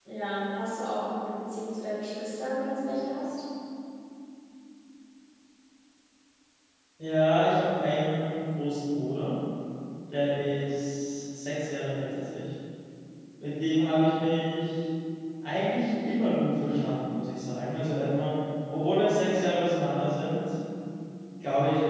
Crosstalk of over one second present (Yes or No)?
No